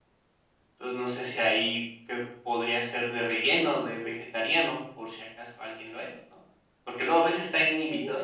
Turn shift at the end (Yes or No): No